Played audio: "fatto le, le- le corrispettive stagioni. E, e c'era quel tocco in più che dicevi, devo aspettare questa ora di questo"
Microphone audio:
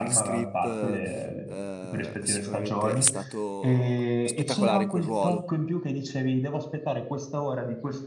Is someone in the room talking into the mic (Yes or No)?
Yes